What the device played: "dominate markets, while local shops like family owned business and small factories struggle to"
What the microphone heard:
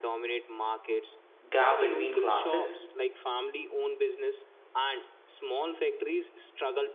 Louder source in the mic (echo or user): user